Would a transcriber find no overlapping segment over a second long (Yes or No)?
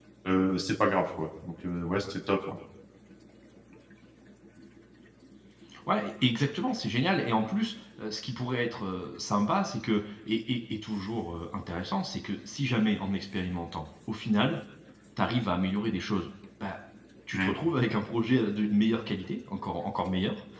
Yes